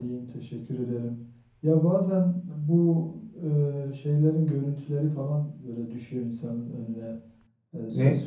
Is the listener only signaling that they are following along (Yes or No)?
Yes